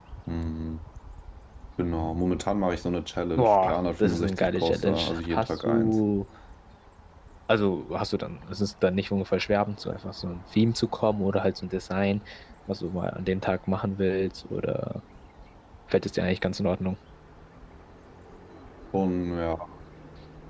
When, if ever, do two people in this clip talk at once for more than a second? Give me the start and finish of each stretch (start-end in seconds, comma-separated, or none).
3.4-6.0